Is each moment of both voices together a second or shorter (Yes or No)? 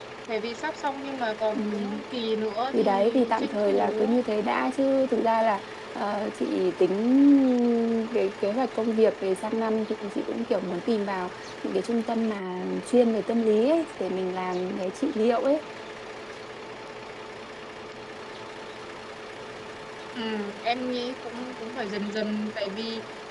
No